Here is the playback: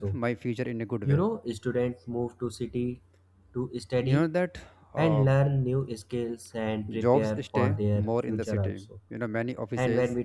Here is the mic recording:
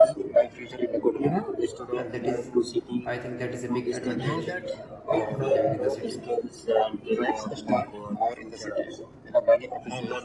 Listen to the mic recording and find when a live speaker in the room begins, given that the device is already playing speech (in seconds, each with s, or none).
2.0 s